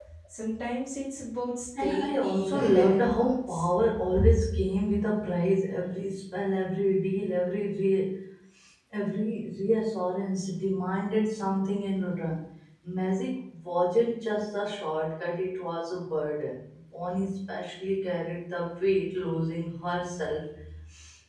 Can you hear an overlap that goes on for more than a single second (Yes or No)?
Yes